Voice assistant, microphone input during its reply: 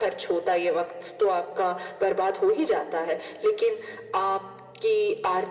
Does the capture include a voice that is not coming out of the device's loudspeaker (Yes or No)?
No